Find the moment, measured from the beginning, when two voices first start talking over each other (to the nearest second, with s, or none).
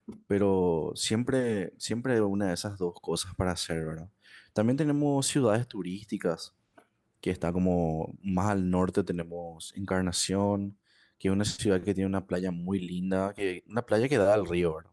none